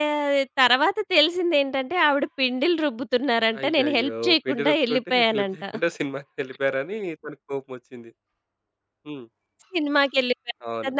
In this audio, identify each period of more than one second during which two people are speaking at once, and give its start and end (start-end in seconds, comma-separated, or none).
3.6-5.6